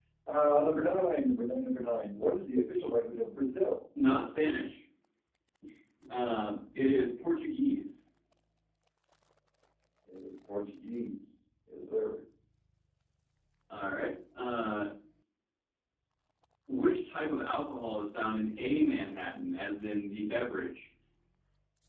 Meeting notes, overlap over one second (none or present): none